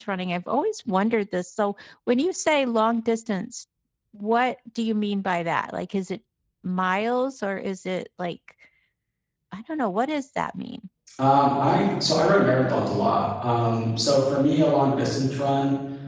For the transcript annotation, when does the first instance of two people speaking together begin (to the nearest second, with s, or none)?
none